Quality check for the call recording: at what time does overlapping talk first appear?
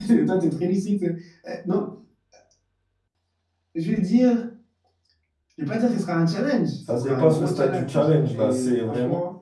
6.9 s

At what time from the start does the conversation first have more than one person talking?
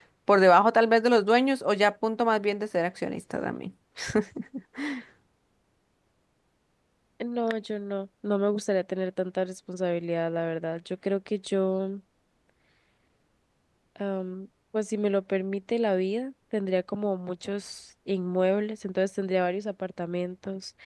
none

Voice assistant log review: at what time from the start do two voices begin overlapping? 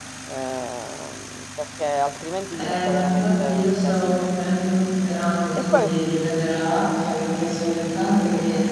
2.5 s

